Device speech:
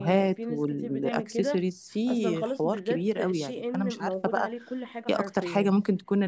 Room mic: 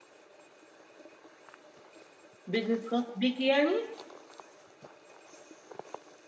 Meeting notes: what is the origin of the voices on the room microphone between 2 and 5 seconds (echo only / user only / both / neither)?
user only